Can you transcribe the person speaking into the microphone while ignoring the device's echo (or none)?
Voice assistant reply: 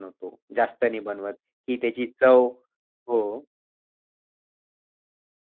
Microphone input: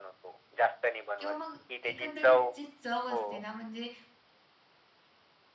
किंवा मग एकंदरीत जी चव असते ना, म्हणजे